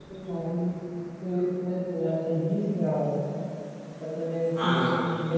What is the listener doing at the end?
listening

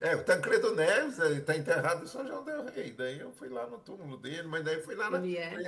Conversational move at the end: listening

